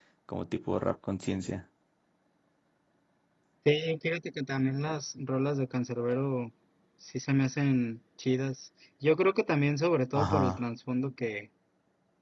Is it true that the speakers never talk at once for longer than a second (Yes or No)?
Yes